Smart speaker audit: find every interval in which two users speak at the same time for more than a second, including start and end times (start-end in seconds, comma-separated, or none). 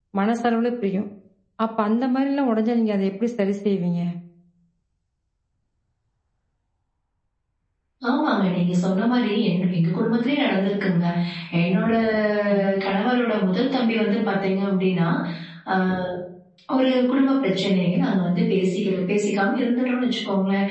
none